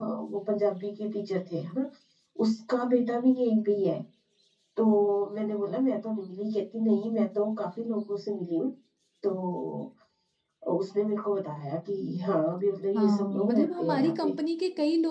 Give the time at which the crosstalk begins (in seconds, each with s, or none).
12.9 s